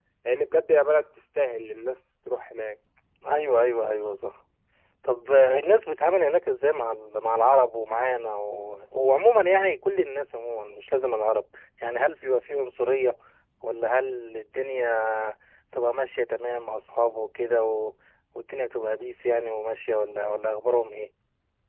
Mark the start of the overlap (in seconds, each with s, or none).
none